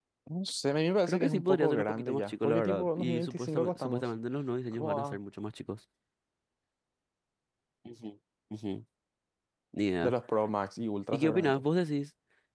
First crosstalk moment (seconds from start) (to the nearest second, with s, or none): 1 s